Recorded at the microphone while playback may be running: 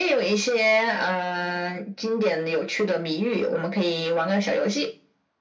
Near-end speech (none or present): none